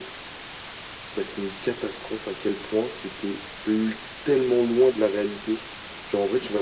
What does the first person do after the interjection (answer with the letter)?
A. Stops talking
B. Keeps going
B